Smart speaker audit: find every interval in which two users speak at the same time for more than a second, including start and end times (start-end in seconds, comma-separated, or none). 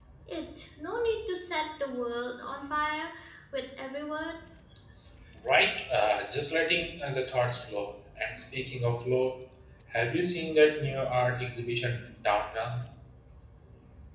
none